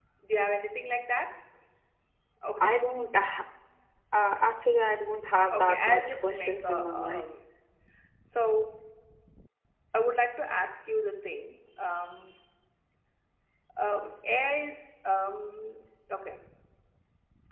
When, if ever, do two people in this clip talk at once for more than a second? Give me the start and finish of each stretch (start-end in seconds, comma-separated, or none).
5.5-7.3